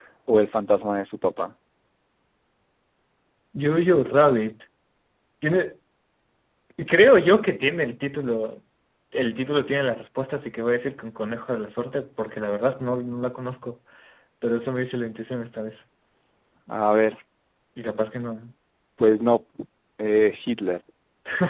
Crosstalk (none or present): none